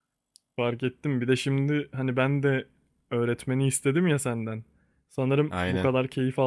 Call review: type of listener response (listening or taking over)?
listening